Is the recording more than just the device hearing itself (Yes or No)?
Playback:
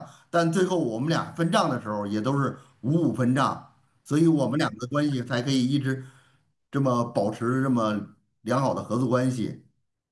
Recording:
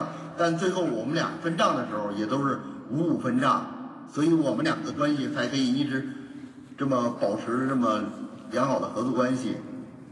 No